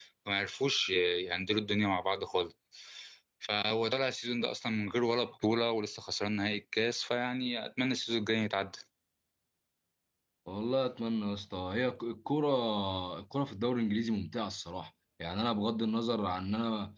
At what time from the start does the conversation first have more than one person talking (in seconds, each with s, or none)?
none